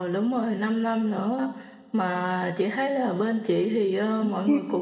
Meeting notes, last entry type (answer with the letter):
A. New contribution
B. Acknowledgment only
B